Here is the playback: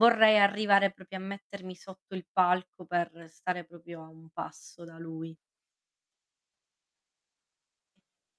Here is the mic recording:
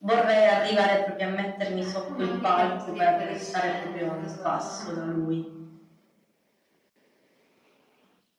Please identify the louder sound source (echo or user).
echo